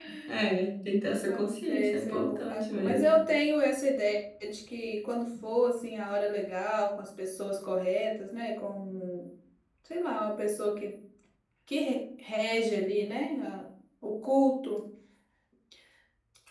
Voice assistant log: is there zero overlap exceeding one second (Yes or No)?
No